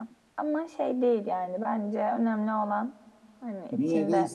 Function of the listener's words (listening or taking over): taking over